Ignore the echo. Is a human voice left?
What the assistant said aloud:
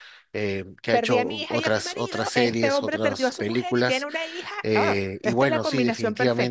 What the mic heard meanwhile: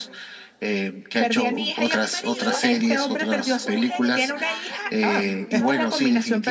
Yes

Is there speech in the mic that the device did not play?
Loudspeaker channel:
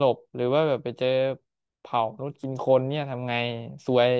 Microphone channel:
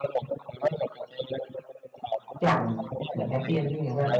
Yes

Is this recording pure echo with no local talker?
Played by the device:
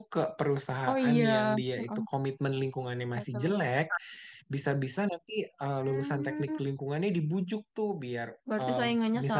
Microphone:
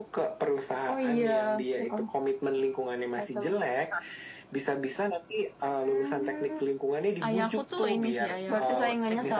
No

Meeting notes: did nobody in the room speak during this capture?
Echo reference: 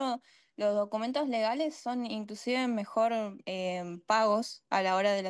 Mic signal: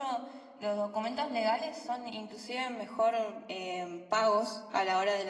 Yes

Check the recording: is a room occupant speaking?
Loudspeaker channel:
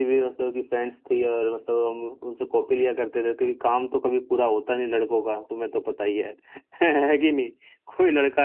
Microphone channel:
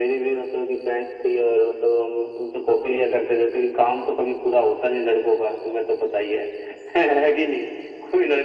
No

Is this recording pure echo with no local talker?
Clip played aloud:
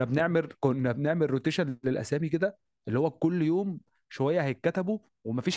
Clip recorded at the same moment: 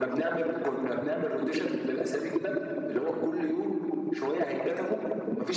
Yes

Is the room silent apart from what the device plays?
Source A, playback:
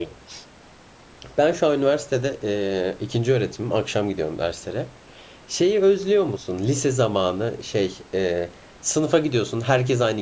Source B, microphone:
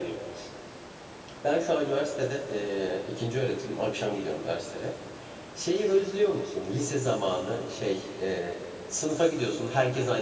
Yes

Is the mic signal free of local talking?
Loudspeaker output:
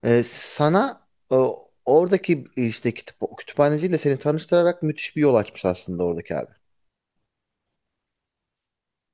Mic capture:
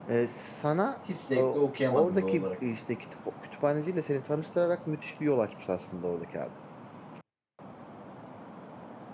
No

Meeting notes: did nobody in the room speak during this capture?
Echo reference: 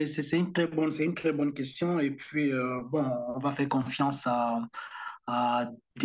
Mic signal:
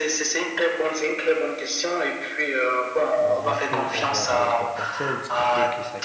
No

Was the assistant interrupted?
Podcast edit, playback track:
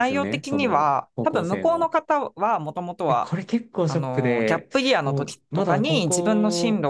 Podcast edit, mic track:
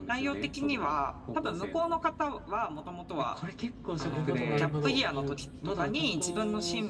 Yes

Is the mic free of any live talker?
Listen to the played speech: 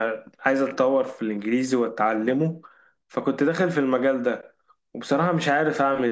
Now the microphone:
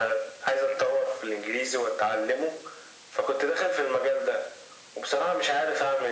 Yes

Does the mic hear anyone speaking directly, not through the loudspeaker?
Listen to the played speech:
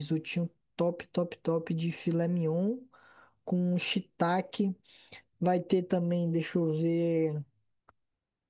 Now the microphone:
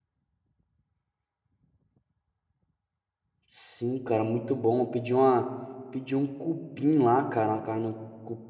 Yes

